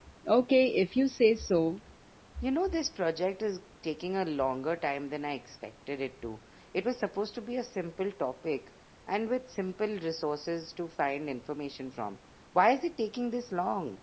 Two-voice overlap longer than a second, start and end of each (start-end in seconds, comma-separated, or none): none